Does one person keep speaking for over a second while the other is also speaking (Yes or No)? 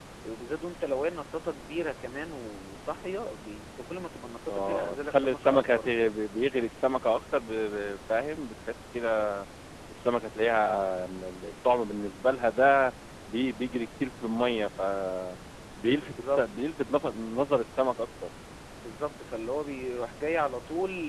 Yes